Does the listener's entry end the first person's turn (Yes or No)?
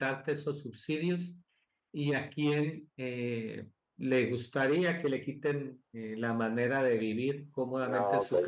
No